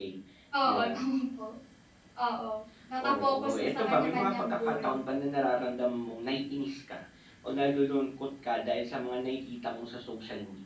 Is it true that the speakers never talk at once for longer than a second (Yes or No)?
No